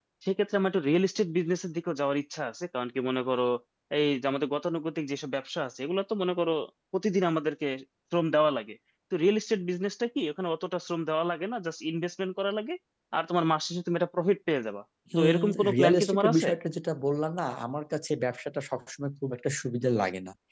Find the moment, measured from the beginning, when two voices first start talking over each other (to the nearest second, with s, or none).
15 s